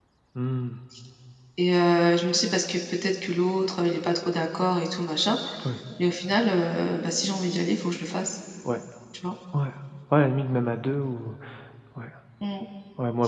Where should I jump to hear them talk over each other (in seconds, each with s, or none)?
none